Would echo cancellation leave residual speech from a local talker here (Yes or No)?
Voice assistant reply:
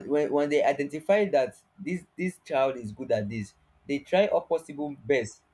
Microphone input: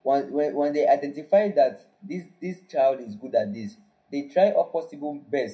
No